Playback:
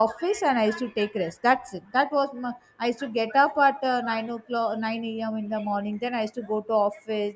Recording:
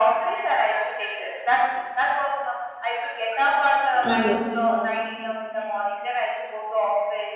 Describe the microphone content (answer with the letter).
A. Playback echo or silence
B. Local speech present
B